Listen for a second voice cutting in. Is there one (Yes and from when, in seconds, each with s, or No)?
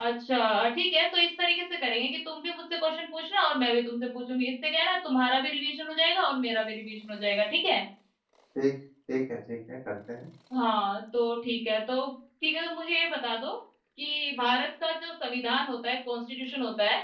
No